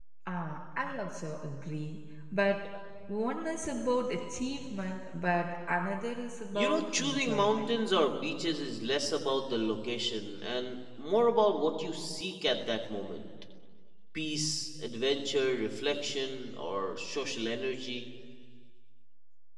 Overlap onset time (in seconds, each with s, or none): 6.5 s